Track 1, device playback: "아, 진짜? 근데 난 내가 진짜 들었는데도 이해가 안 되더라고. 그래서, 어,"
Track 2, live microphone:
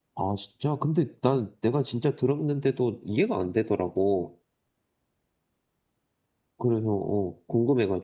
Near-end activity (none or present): none